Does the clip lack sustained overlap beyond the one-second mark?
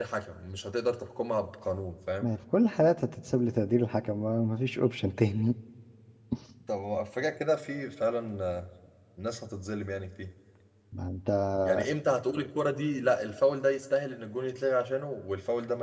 Yes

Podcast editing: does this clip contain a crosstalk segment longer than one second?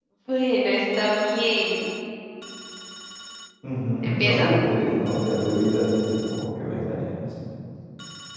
No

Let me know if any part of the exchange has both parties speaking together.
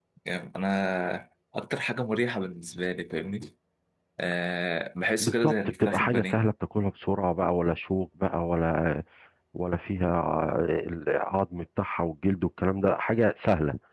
Yes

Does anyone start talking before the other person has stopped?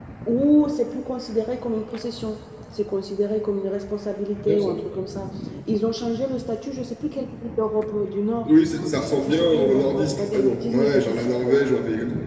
Yes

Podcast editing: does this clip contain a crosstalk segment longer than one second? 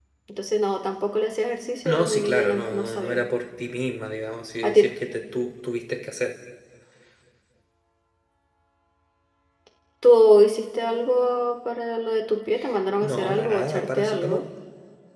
Yes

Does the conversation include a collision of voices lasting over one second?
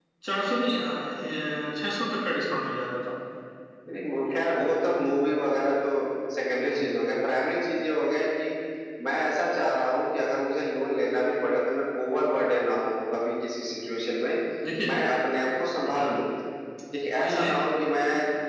No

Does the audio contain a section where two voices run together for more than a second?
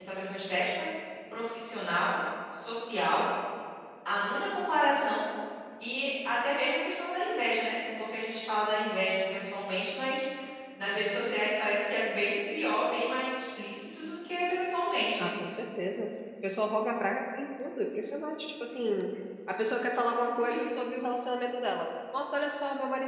No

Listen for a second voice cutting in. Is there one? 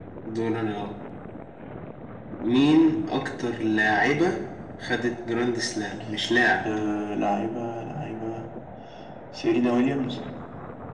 No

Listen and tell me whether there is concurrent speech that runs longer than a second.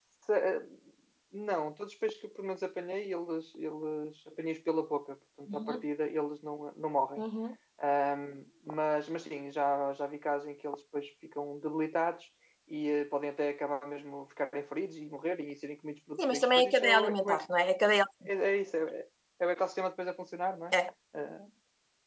Yes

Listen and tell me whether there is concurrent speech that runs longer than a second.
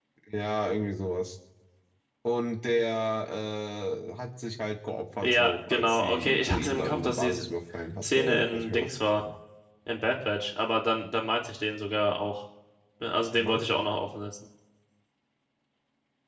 Yes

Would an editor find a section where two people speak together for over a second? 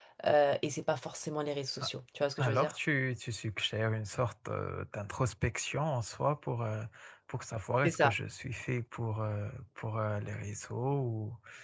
No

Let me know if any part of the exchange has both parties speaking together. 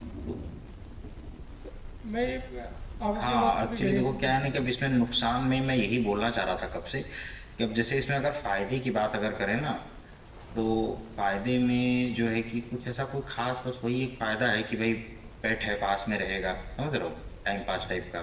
Yes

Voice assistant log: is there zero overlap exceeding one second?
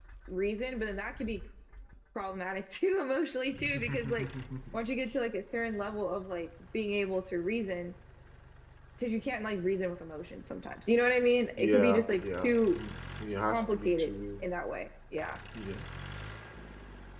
No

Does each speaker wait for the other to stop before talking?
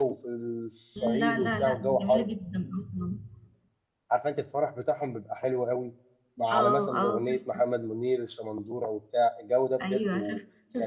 No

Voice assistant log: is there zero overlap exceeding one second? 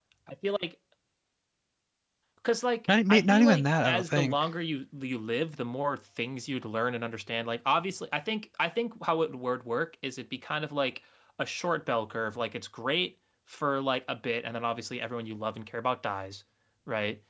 No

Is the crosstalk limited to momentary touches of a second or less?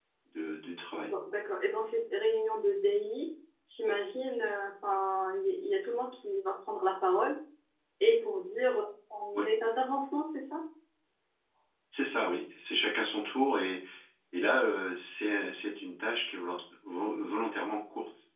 Yes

